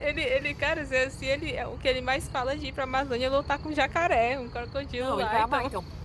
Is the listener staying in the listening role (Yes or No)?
No